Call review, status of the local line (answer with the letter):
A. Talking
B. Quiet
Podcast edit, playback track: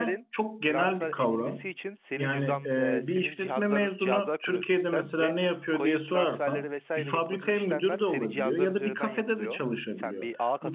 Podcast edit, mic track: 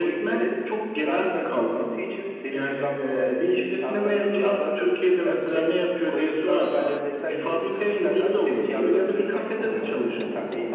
B